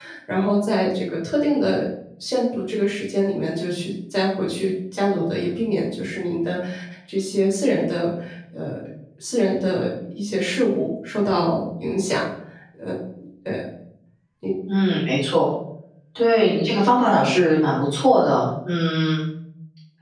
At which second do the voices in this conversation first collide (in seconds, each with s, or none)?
none